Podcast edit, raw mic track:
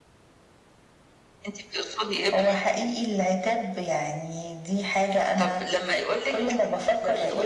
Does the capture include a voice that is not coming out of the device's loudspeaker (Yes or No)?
No